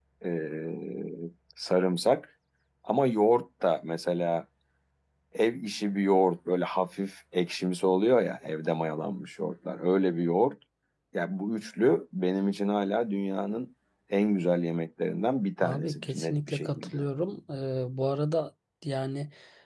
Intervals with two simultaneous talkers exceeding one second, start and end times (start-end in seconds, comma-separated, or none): 15.6-17.0